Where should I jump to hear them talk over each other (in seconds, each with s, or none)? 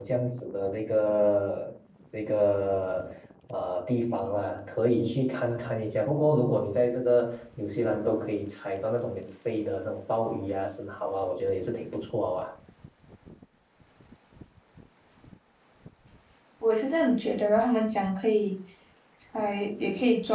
none